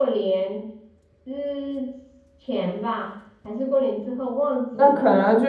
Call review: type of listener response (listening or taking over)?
taking over